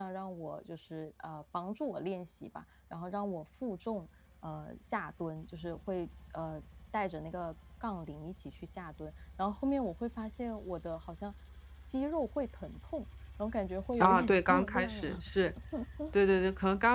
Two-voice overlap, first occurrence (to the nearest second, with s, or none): 14 s